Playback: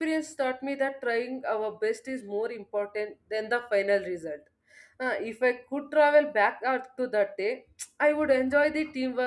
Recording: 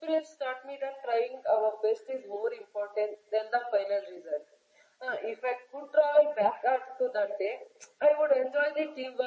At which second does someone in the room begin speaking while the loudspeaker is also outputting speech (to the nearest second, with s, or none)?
none